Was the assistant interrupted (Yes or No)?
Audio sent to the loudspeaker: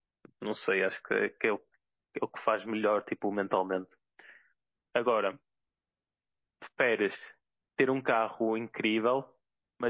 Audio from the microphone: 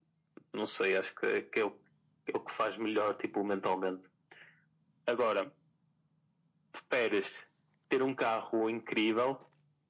No